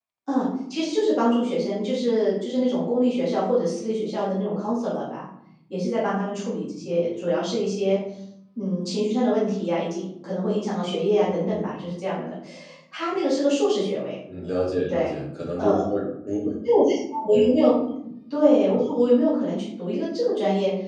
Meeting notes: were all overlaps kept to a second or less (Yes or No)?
Yes